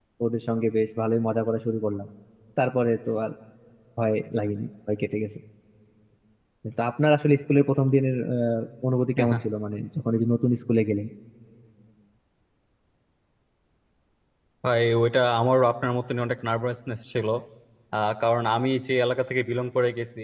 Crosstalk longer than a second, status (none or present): none